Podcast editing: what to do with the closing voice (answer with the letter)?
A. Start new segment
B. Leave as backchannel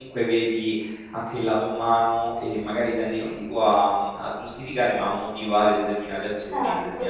A